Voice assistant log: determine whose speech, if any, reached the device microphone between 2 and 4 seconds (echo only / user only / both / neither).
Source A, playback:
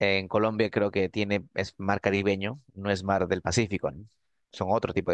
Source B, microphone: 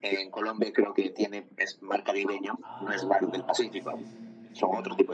both